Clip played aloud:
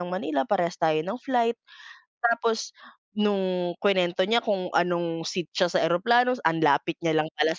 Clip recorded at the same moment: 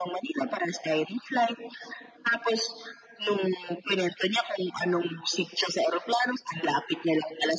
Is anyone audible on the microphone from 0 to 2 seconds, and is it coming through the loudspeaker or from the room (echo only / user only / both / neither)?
echo only